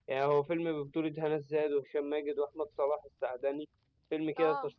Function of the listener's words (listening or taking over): listening